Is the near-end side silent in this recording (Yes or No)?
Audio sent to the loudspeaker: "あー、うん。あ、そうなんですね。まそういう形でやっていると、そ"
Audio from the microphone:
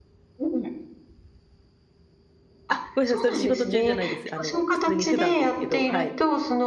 No